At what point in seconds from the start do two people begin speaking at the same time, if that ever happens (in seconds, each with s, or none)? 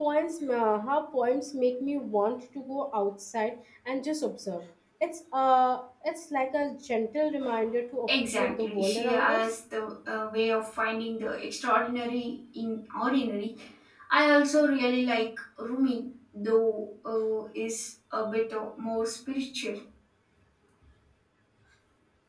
8.1 s